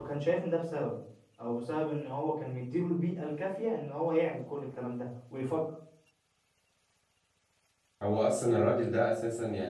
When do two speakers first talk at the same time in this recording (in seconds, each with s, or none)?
none